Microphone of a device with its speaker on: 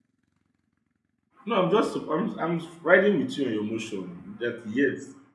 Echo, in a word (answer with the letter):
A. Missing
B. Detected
A